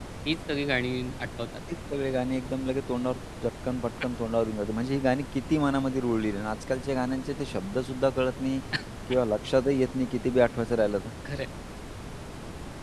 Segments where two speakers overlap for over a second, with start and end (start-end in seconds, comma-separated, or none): none